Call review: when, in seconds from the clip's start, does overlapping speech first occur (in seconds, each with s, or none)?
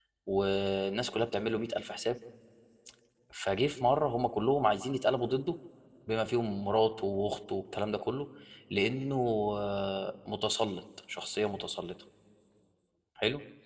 none